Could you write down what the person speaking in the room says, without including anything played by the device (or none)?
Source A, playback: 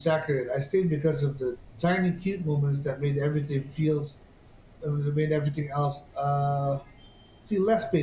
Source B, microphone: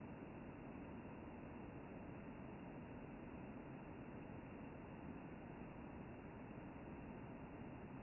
none